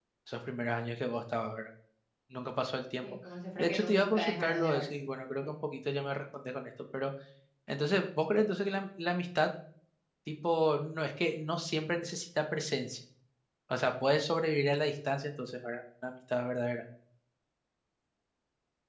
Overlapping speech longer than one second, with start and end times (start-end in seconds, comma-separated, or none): 3.6-4.8